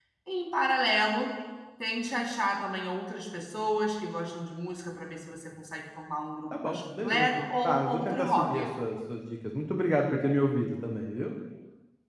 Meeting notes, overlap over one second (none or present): present